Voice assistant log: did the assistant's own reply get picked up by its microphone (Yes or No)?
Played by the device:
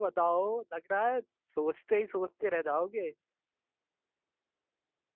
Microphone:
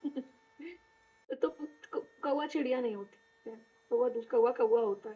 No